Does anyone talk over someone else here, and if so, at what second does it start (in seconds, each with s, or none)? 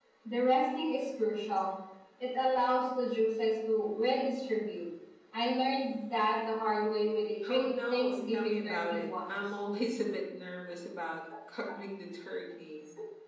7.4 s